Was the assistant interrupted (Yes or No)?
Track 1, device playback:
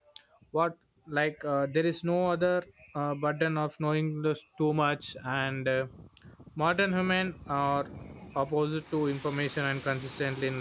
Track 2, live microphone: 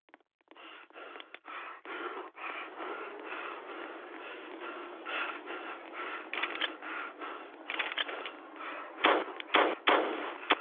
No